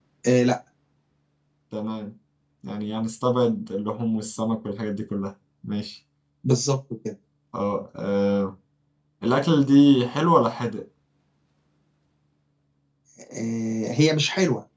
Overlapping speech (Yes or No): No